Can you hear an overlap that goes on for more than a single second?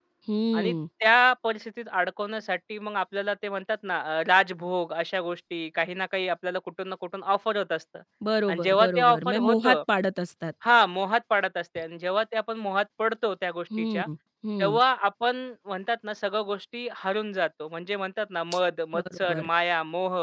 Yes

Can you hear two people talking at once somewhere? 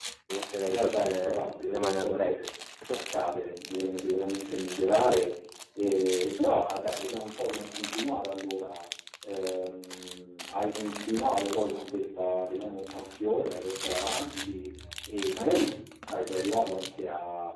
Yes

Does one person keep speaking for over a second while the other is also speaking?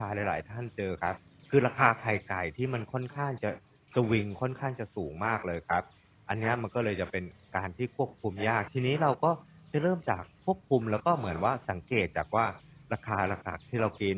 No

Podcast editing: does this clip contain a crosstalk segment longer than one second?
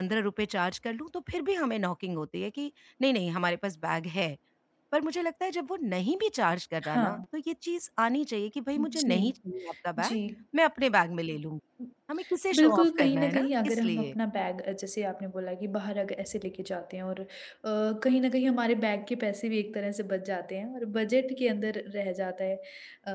Yes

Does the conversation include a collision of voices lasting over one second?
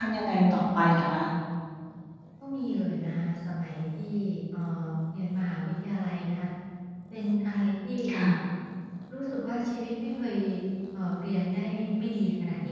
No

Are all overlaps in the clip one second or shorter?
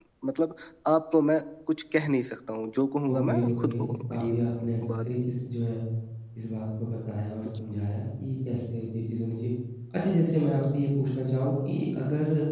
No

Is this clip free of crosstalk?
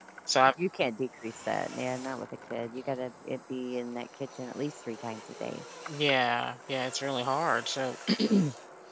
Yes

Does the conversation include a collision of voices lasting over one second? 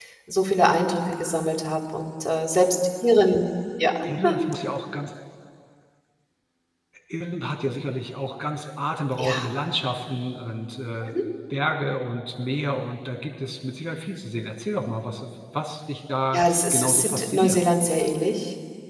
Yes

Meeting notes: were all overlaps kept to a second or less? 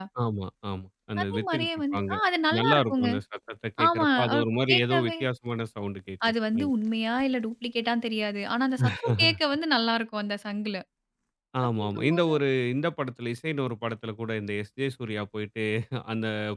No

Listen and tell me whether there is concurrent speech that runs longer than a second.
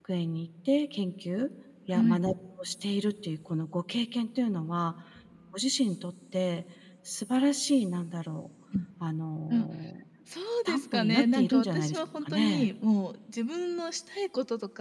Yes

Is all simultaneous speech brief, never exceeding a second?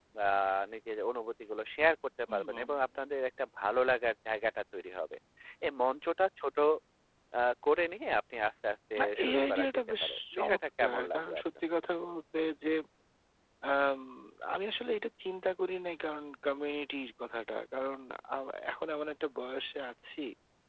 No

